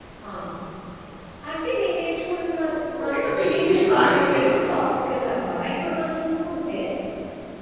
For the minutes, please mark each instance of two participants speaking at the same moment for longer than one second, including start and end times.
3.0-4.9

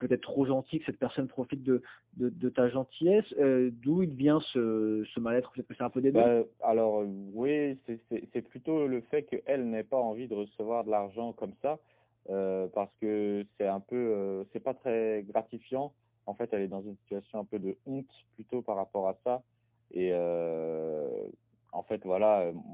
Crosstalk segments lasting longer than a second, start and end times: none

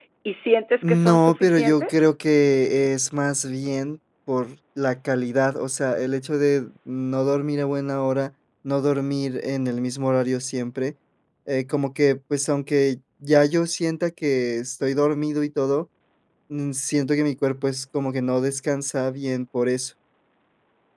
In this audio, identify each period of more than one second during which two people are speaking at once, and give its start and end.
0.8-2.1

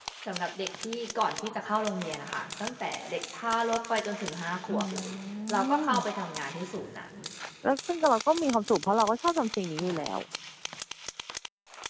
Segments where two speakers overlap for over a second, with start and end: none

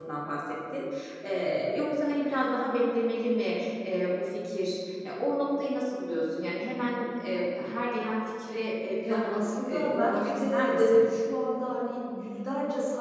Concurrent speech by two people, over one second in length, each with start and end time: 9.0-11.0

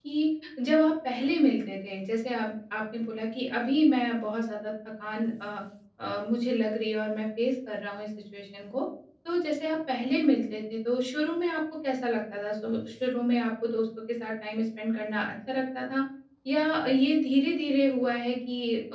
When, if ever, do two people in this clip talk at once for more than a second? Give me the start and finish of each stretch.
none

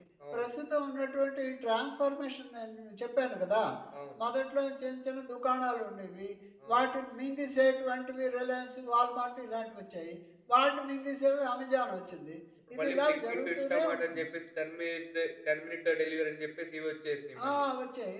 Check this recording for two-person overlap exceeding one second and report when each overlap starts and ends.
12.8-14.3

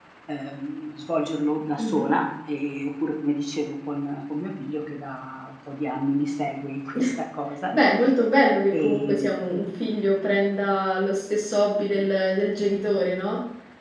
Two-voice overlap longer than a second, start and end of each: none

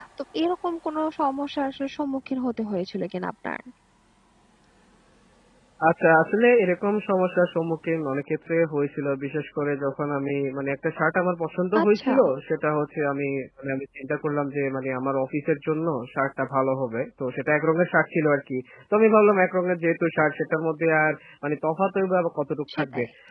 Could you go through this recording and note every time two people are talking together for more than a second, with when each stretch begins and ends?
none

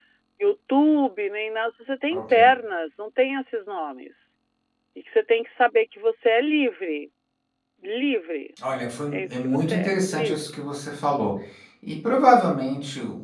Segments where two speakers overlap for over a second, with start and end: 9.1-10.6

